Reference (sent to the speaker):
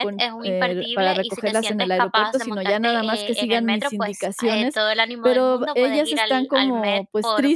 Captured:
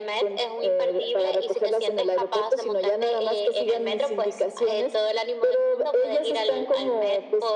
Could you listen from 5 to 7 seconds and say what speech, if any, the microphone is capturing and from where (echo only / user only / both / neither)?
echo only